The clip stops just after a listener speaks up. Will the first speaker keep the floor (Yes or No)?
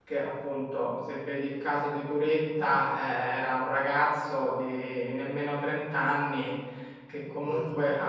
Yes